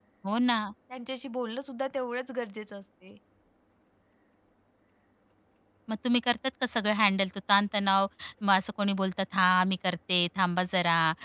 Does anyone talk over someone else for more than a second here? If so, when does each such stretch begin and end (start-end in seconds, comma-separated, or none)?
none